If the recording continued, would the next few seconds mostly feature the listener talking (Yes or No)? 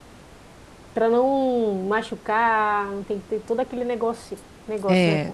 Yes